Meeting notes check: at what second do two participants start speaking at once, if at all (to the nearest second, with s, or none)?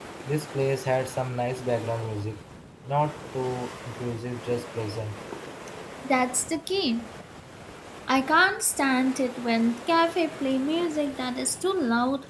none